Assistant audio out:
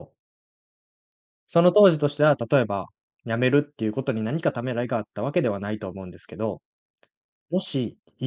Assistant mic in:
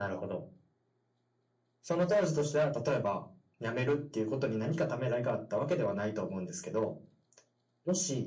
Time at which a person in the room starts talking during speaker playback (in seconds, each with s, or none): none